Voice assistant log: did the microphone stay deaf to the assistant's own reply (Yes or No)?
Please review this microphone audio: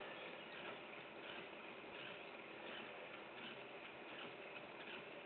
Yes